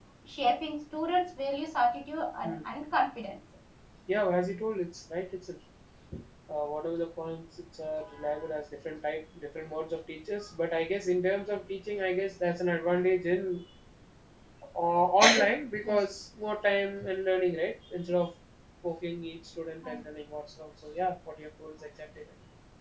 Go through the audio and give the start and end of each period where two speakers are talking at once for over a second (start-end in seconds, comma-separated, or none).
none